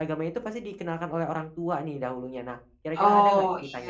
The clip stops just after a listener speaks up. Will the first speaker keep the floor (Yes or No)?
No